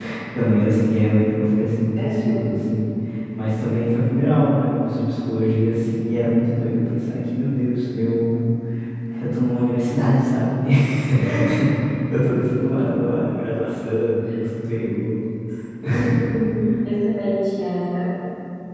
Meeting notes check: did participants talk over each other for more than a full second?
No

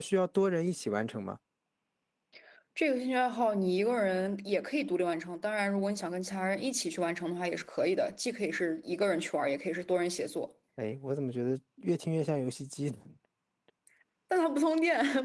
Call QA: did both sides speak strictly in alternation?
Yes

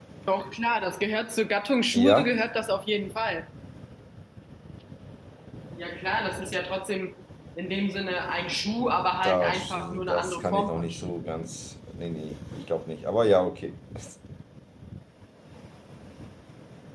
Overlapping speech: Yes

